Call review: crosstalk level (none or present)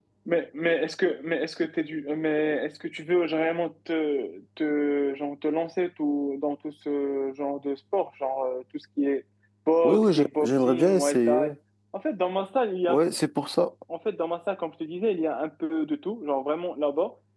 present